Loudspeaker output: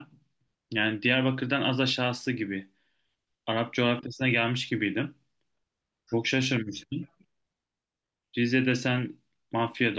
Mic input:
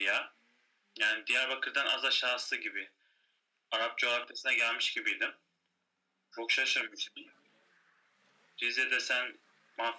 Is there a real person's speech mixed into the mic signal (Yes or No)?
No